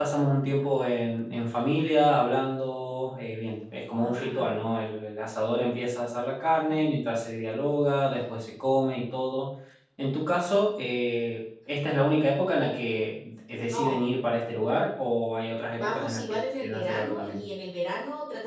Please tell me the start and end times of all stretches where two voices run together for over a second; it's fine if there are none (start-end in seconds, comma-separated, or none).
15.8-17.4